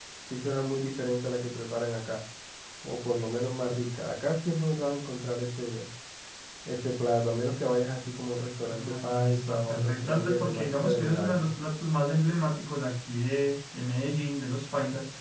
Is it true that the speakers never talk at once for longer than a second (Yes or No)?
No